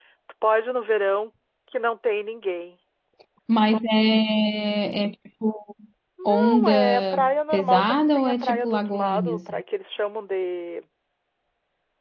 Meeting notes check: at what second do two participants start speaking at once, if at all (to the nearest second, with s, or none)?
6 s